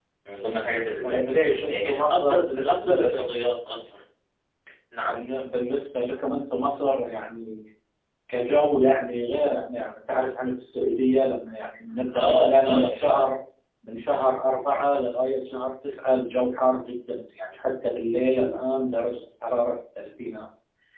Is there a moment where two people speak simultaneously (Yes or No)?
Yes